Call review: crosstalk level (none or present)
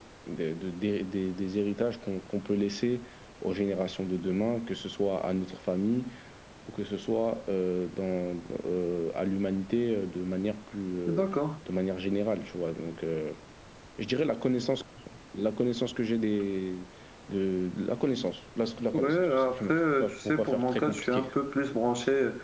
present